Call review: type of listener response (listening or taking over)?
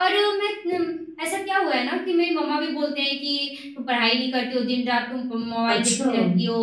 listening